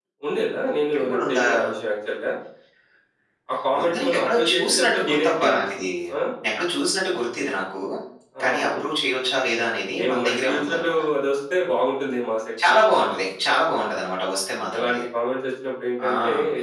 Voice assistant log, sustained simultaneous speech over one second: present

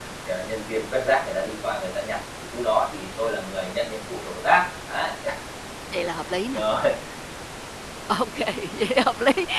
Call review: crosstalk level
none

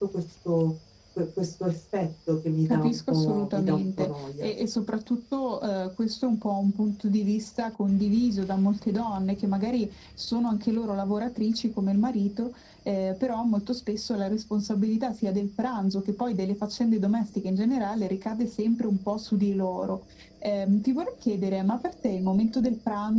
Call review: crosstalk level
present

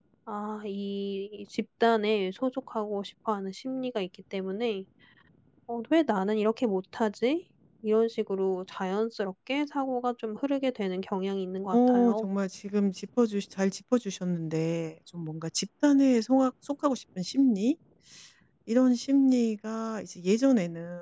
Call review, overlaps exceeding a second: none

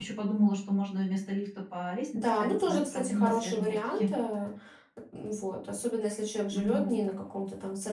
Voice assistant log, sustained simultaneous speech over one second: present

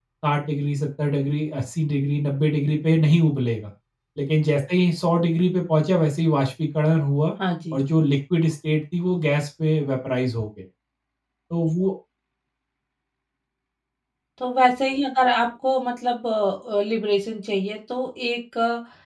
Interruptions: none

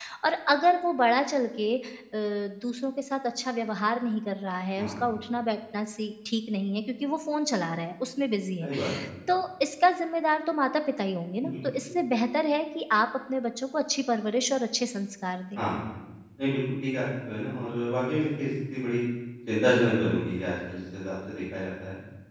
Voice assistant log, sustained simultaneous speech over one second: none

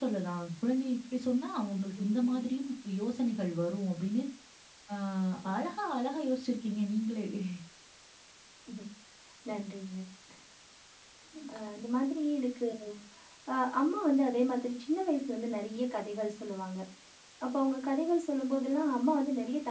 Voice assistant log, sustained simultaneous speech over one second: none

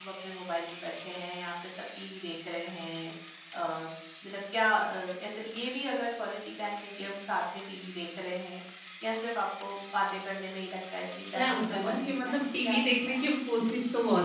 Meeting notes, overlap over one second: present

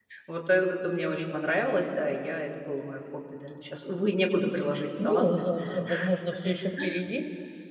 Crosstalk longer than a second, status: none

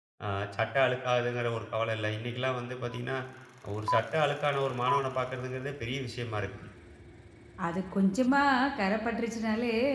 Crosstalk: none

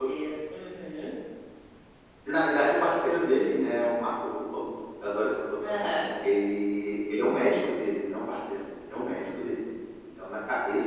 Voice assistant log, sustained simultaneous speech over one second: none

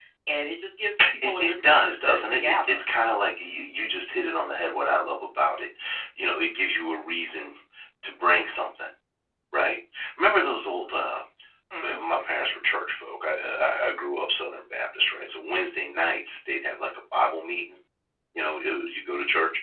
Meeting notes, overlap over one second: present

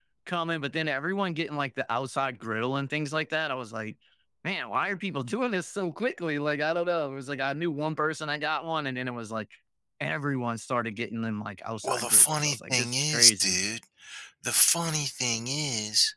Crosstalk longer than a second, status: present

